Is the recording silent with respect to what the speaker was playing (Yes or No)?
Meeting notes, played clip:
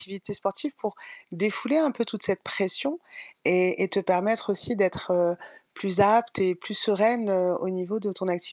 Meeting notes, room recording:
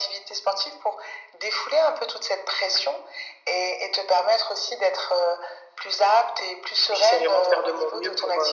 No